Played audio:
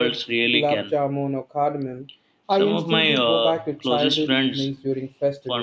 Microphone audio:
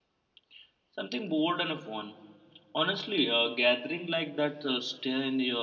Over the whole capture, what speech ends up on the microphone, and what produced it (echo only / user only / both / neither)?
user only